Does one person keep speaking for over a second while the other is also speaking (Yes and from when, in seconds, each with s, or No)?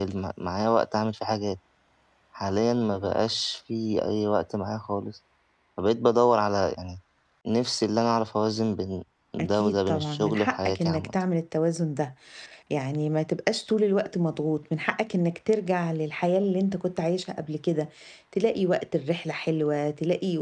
Yes, from 9.4 s